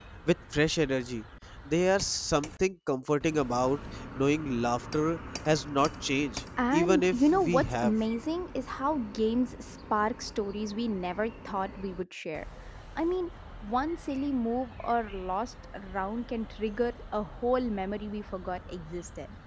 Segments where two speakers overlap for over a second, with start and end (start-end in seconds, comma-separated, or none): 6.7-7.9